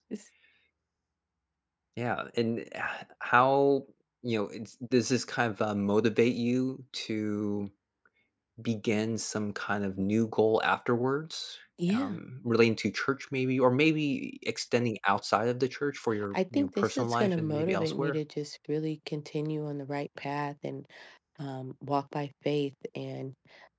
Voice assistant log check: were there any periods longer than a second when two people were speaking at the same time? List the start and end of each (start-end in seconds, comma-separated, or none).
16.3-18.2